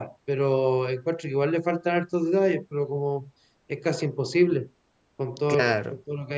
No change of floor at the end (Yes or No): Yes